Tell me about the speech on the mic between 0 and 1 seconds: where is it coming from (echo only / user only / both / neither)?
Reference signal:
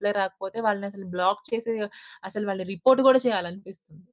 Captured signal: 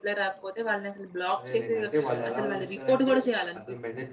echo only